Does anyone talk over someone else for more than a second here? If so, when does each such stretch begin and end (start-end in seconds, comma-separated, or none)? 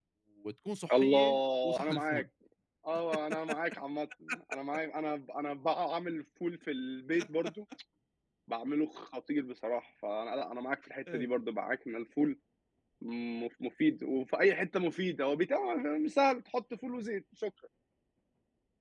0.9-2.2